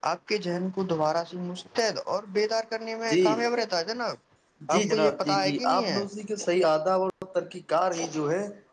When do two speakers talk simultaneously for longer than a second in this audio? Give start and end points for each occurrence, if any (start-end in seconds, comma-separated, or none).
4.7-6.0